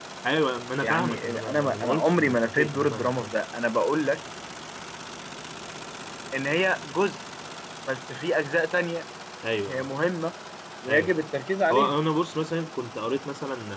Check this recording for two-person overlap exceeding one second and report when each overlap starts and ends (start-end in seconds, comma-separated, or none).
0.8-3.3